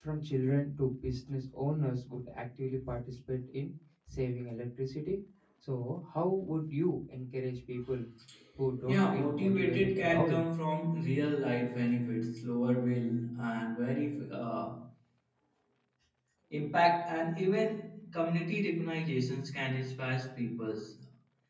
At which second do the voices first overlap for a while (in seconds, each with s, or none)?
8.8 s